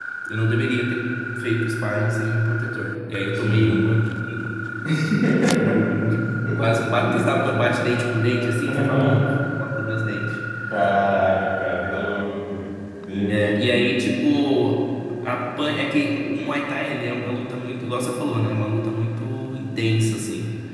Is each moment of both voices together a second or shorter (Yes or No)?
Yes